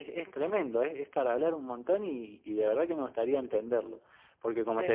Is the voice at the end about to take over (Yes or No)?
No